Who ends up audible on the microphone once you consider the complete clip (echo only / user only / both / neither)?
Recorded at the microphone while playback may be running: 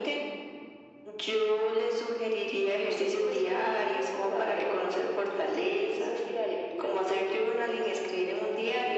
echo only